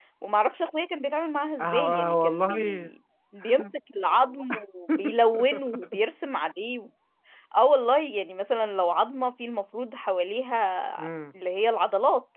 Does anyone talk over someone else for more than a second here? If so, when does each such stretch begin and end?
1.6-2.9

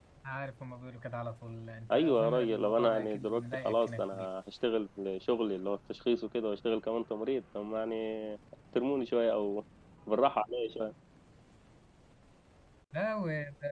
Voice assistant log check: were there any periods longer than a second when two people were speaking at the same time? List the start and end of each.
1.9-4.3

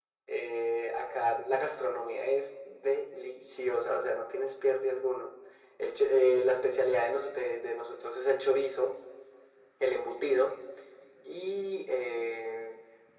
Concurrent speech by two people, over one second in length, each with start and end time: none

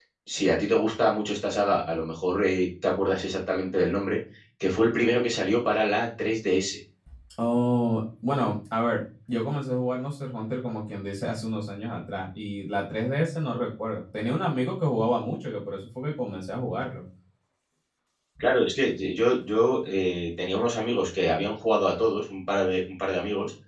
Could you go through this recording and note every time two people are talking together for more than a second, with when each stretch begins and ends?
none

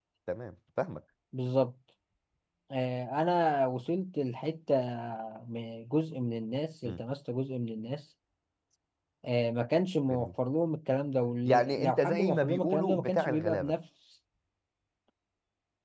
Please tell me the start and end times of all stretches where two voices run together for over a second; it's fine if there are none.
11.4-13.7

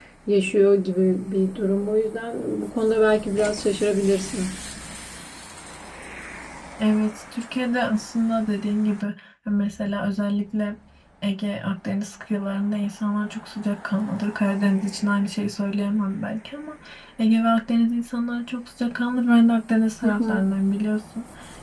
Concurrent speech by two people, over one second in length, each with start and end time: none

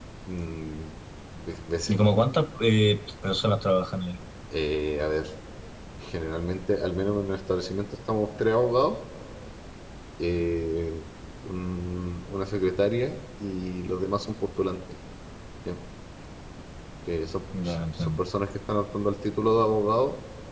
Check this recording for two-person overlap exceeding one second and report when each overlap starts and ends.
none

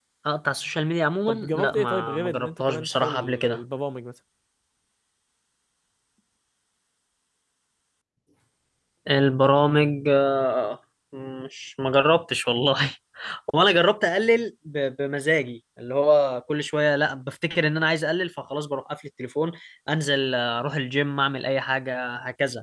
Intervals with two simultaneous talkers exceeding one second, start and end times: 1.3-3.6

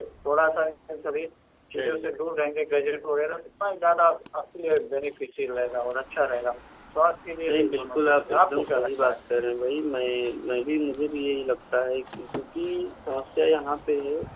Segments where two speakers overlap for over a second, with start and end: 7.5-9.2

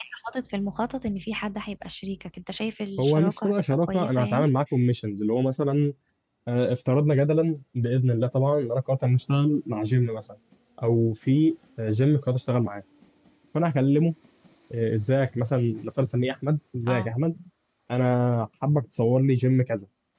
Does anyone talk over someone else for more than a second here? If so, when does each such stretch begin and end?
3.0-4.4

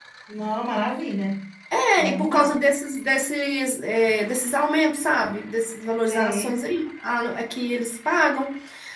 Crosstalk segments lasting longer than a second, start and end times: none

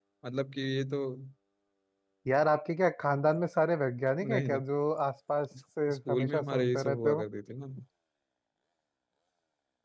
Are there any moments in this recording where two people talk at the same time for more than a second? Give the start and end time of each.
5.9-7.2

